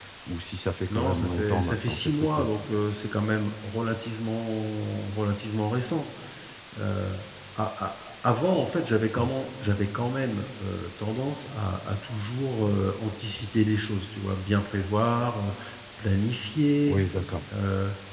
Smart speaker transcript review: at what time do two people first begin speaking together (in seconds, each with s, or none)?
0.9 s